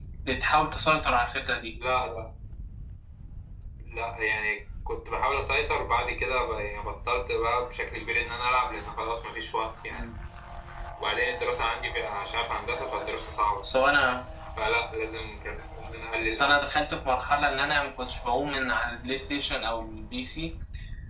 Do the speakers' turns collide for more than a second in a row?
No

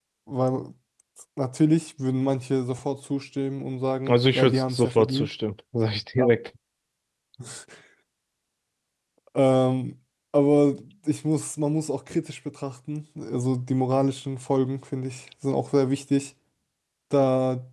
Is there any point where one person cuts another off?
Yes, from 4.1 s

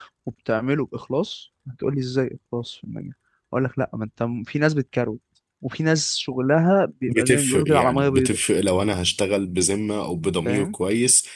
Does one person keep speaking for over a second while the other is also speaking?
Yes, from 7.1 s

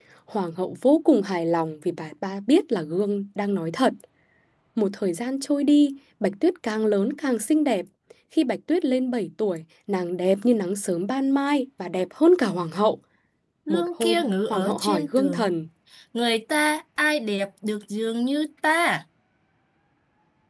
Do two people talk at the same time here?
Yes, from 13.7 s

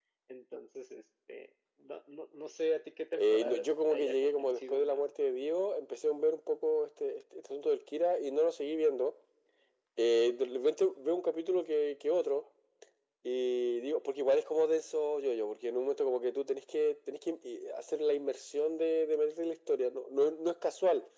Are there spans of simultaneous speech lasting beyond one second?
Yes, from 3.2 s

